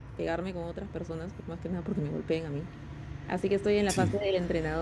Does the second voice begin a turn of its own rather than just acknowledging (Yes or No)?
No